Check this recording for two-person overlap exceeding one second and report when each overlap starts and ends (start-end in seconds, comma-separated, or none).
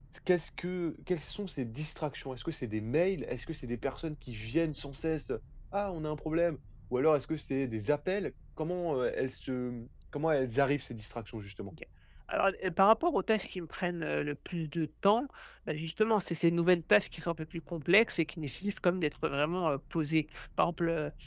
none